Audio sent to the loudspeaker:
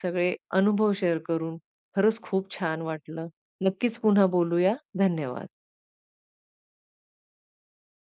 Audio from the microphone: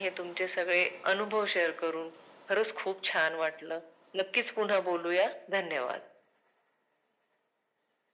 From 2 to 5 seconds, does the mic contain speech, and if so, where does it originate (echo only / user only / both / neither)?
echo only